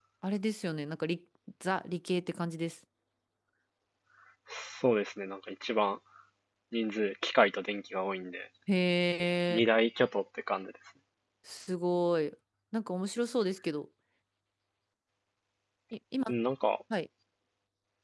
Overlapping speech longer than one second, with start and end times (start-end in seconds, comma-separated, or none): none